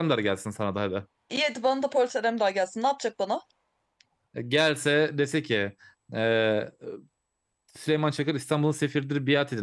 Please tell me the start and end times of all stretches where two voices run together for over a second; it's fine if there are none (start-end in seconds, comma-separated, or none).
none